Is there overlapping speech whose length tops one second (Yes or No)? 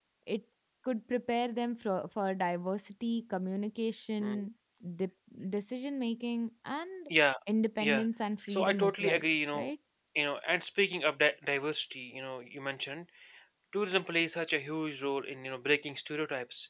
Yes